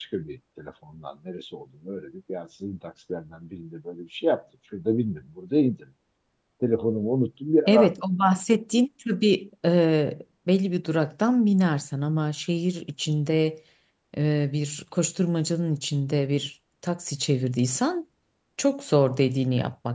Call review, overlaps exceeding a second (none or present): none